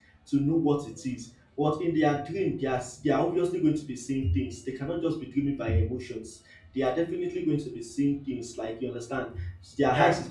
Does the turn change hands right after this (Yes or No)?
No